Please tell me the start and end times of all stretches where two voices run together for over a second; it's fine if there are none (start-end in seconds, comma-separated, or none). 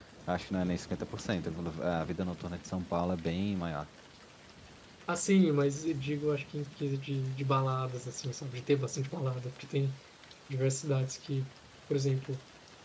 none